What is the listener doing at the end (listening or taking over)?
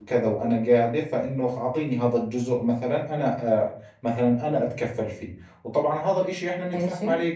listening